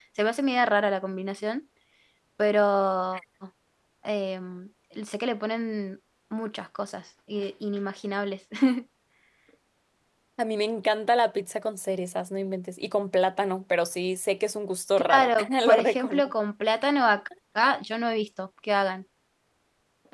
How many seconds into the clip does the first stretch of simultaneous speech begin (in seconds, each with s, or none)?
15.0 s